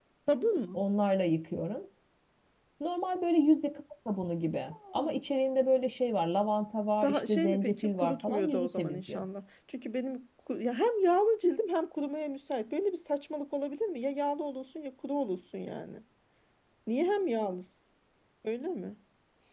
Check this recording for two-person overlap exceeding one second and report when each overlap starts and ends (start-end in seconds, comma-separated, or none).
7.0-9.2